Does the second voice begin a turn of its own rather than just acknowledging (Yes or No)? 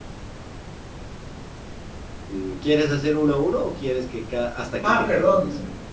Yes